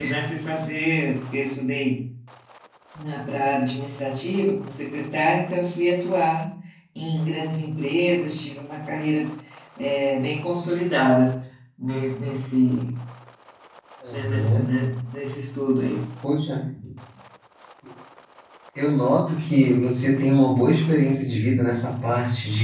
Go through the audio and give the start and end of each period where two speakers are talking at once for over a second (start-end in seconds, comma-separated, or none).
none